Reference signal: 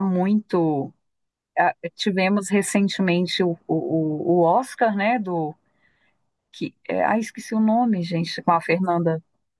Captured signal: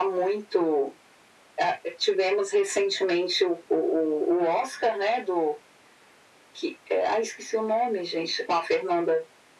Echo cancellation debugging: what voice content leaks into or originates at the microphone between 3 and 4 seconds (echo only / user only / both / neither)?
echo only